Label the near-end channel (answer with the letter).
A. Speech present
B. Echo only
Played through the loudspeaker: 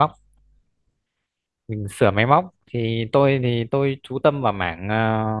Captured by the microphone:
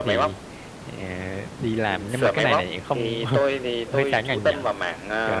A